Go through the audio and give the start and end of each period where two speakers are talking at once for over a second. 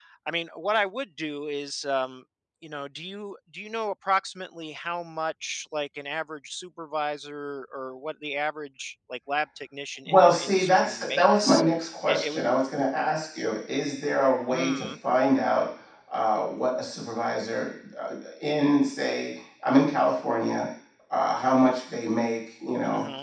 10.1-11.6

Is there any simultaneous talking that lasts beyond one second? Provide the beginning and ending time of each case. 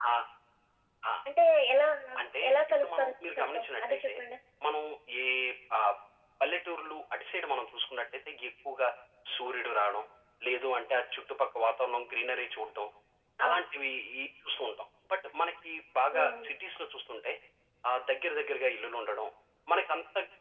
2.5-4.1

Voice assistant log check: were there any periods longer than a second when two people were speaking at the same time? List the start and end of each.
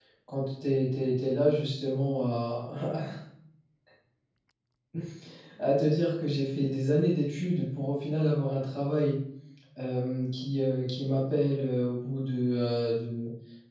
none

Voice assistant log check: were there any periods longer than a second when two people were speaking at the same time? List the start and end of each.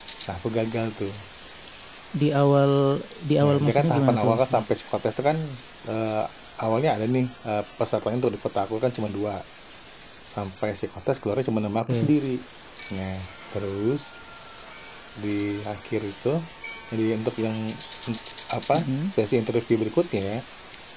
3.4-4.6

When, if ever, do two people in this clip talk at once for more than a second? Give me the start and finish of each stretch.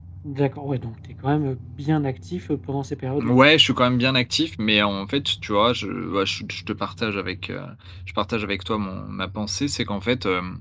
none

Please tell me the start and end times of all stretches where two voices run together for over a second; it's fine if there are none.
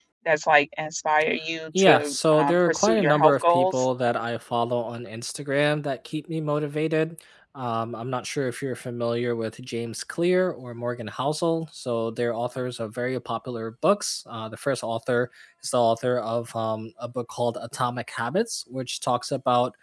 1.8-3.9

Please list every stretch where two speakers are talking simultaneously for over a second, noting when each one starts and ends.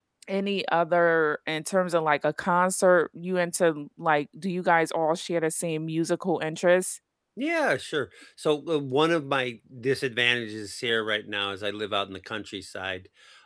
none

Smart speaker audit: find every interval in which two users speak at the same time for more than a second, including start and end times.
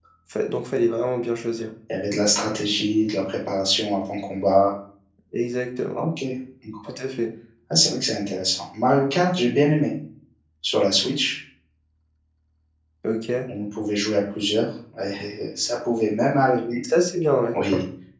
none

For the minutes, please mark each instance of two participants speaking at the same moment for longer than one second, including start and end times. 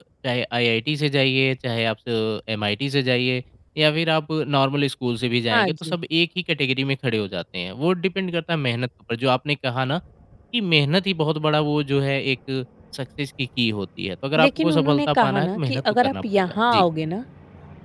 14.4-16.8

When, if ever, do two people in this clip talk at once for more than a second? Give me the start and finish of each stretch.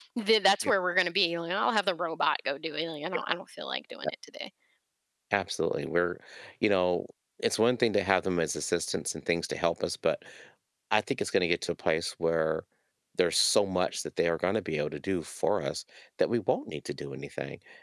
none

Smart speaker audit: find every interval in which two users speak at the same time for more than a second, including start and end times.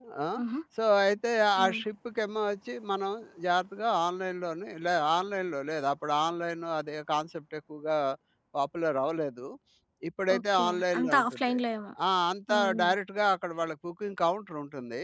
10.4-11.6

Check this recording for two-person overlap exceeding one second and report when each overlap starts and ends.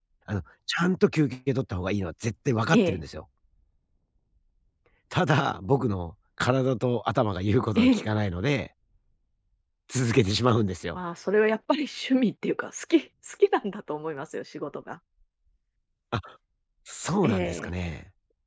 none

